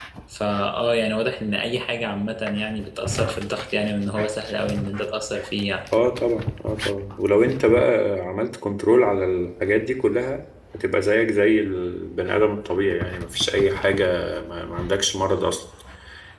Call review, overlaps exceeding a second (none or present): none